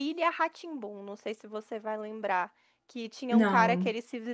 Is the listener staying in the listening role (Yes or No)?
Yes